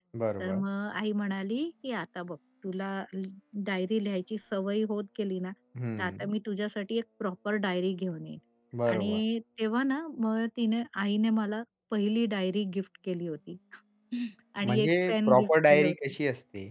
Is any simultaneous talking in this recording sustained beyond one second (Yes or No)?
Yes